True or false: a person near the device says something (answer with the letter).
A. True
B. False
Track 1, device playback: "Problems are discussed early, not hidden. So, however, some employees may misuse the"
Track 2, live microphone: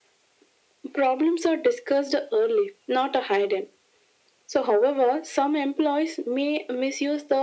B